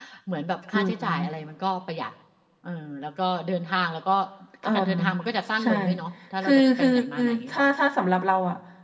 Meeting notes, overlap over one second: present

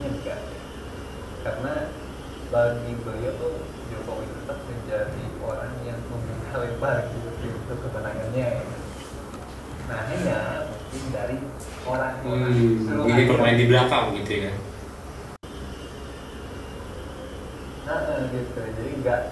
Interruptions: present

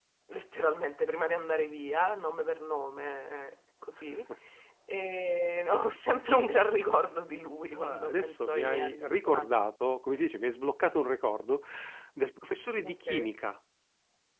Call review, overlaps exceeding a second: present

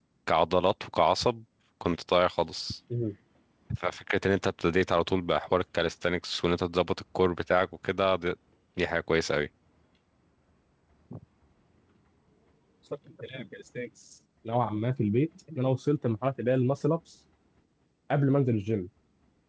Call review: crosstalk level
none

